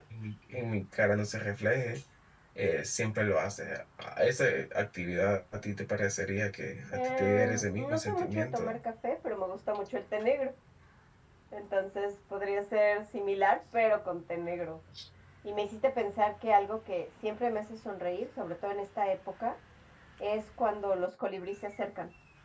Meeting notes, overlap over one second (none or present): present